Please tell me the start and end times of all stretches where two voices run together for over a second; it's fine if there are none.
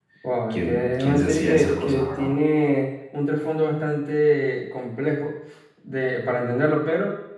0.5-2.3

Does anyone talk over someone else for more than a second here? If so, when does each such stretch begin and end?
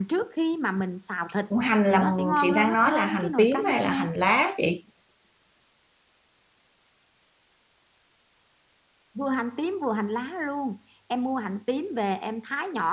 1.9-4.1

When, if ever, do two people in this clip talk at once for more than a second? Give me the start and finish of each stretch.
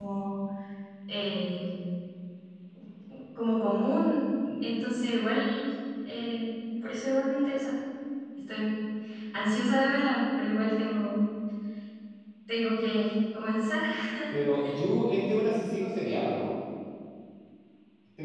none

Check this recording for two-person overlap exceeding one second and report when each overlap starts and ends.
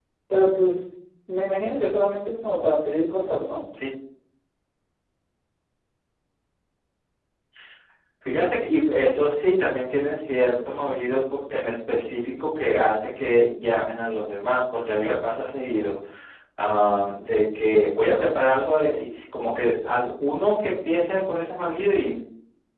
none

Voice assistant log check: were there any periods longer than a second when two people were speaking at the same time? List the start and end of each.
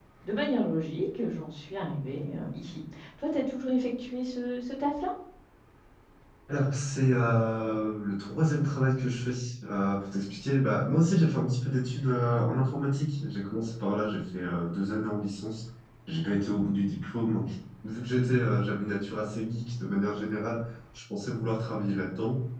none

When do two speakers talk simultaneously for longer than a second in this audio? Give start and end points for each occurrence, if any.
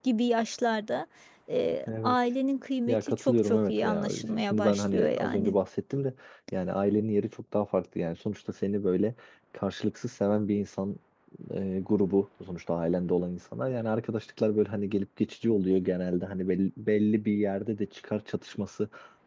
2.9-5.5

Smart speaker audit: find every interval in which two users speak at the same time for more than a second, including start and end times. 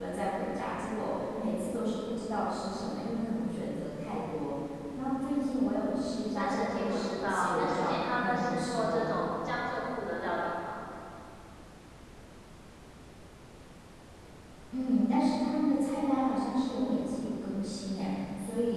6.4-9.0

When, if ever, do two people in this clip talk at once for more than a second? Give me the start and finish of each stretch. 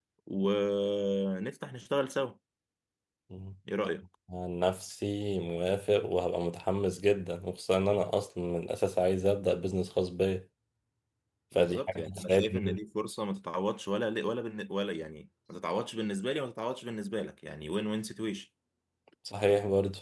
11.6-12.8

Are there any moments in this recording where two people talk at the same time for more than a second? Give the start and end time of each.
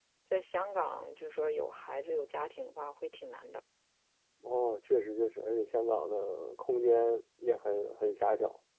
none

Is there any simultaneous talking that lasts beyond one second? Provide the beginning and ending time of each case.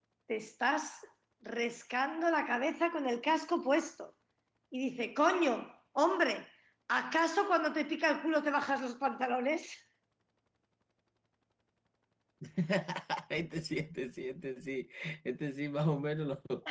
none

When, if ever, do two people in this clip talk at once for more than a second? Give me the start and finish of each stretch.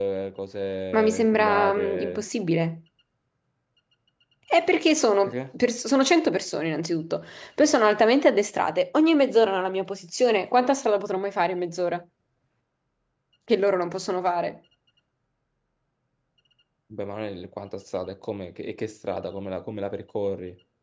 0.9-2.2

